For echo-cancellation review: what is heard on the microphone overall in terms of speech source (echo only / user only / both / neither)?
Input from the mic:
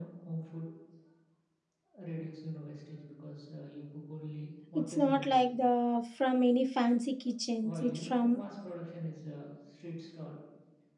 both